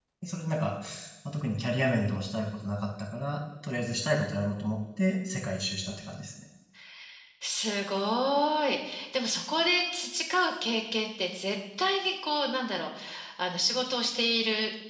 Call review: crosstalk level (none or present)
none